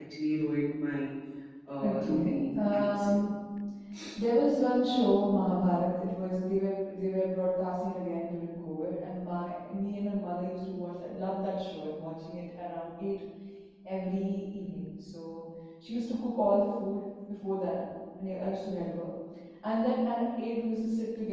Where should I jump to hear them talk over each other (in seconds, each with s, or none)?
1.8 s